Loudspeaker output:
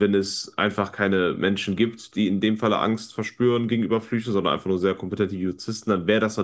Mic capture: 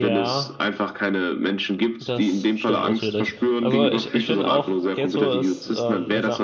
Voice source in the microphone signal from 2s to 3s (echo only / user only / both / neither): both